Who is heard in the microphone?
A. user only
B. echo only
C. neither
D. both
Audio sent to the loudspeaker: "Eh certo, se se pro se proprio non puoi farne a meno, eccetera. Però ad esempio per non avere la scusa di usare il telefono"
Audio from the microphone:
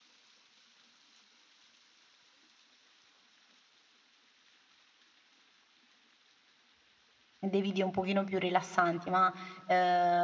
A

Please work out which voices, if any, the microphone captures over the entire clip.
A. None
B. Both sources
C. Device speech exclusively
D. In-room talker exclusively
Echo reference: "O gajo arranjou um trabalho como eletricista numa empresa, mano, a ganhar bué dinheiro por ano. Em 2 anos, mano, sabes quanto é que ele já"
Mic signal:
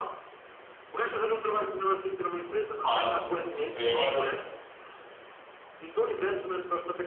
B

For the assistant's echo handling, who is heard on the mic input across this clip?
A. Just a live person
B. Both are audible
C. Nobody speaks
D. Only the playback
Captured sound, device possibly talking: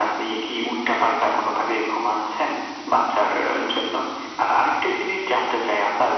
D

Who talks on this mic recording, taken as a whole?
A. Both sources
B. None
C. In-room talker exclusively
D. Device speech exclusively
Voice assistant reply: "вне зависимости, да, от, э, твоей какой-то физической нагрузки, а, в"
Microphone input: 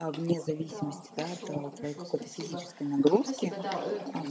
A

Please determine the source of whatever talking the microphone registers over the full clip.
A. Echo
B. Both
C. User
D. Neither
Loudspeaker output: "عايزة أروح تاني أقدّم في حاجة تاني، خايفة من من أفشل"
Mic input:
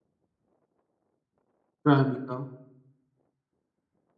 C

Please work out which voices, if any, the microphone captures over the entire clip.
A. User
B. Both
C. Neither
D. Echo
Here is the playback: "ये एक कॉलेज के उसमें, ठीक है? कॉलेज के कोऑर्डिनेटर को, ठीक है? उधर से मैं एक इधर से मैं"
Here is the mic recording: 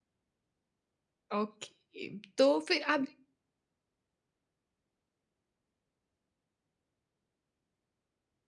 A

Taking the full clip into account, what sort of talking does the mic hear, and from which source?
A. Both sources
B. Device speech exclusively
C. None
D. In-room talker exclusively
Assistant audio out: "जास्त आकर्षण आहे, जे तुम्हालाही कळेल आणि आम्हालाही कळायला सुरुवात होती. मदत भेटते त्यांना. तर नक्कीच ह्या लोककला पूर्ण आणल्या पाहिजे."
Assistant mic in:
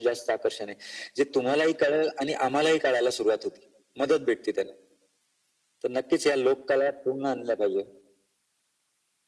B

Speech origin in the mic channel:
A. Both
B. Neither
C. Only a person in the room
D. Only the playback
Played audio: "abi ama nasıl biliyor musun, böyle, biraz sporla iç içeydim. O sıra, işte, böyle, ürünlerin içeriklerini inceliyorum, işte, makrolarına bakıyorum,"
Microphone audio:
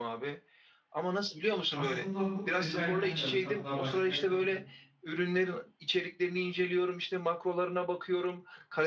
A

